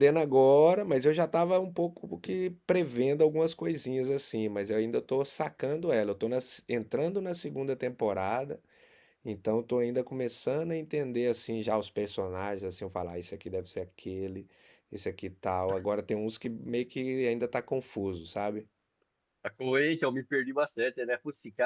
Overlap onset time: none

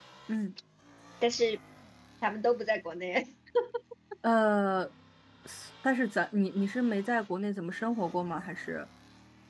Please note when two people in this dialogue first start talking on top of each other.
none

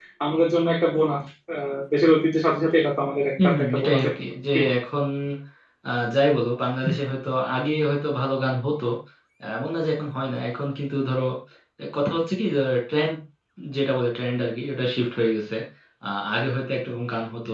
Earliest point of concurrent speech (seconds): 3.4 s

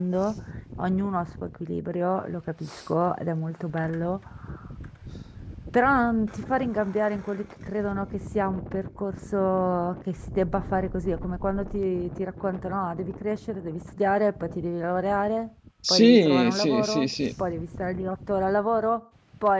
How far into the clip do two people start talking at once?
15.8 s

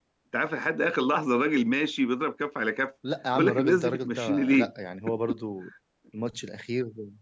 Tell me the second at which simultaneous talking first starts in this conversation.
3.3 s

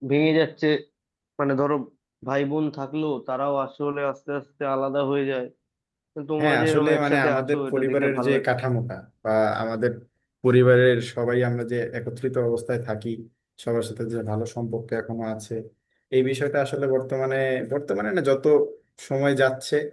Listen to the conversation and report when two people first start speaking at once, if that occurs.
6.4 s

